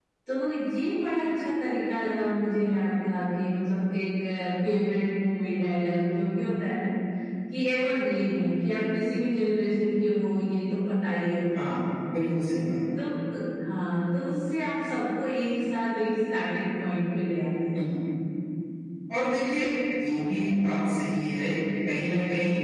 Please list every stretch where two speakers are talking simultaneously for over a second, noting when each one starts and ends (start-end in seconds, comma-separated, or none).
none